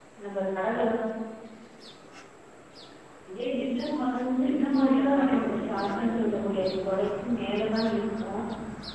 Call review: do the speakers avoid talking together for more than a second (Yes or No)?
No